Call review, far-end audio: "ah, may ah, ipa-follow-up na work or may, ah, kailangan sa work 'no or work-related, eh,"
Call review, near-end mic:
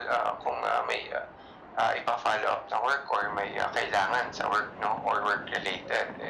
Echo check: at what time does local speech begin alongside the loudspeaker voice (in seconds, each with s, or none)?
none